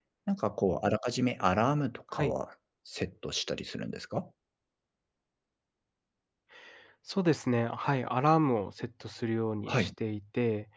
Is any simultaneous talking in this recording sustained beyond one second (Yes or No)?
No